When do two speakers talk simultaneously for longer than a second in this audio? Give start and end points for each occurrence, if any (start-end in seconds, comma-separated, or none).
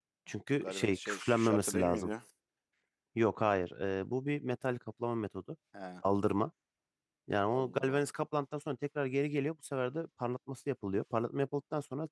0.6-2.1